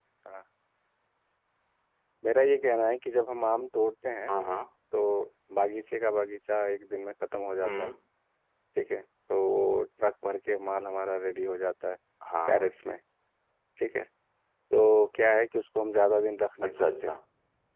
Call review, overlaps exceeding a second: none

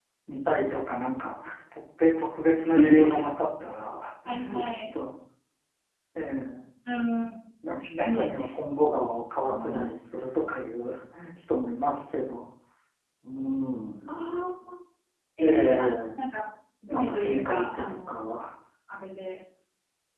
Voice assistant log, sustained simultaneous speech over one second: present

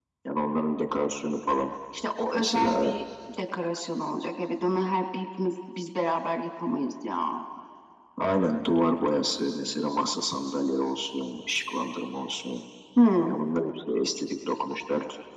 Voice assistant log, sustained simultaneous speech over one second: none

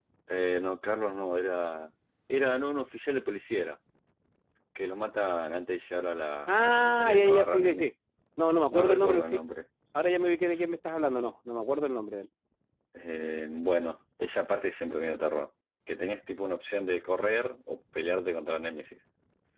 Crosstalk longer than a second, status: present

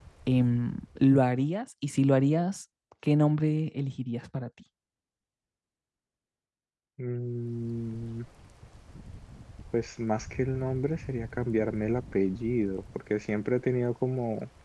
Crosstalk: none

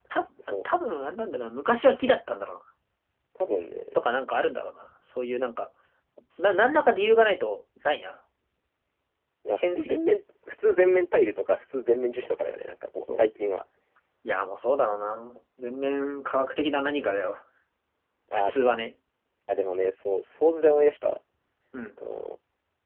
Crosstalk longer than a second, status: none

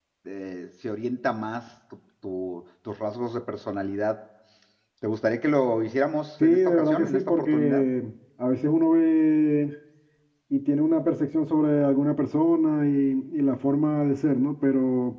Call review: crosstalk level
present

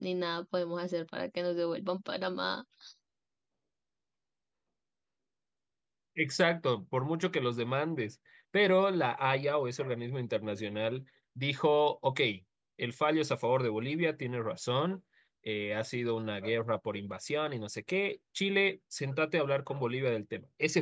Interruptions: none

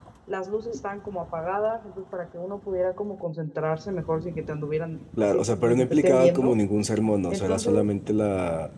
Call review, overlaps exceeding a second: present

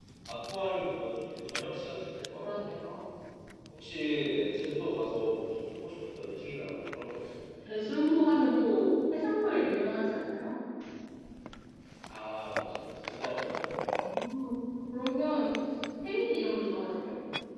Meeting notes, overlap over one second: none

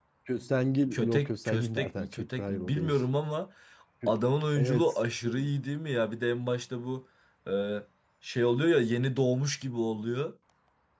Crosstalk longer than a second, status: present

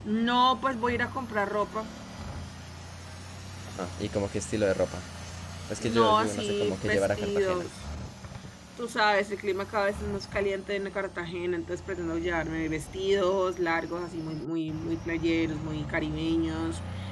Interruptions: present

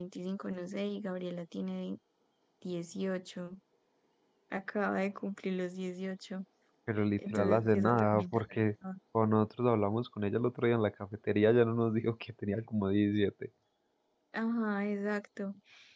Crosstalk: present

